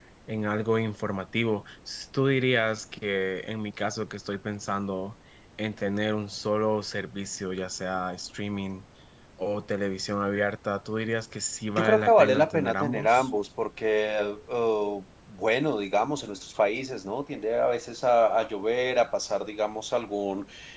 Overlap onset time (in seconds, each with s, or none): 11.8 s